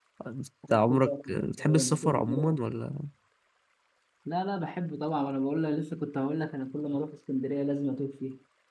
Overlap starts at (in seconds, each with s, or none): 0.7 s